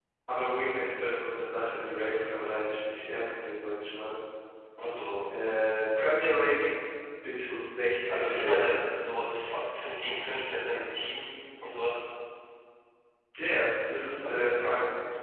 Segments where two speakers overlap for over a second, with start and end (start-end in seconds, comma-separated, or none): none